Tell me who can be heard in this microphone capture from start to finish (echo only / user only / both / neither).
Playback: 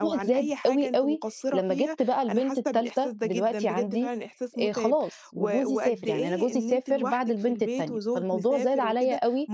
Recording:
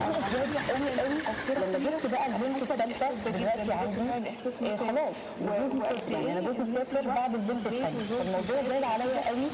echo only